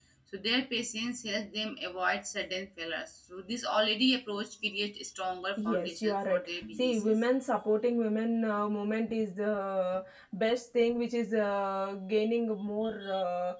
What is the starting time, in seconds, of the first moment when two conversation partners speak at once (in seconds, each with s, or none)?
5.6 s